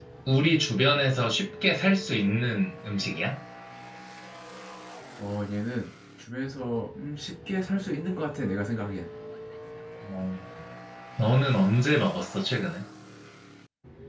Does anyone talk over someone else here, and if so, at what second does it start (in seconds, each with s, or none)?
none